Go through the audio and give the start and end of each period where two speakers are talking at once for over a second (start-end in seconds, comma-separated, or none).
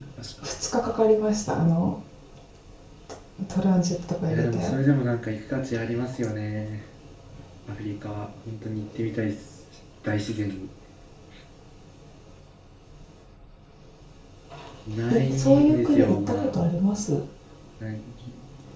15.1-16.5